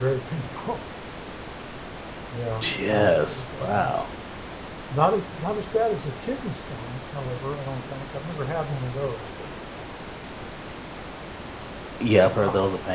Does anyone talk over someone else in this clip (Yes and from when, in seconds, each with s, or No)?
Yes, from 2.6 s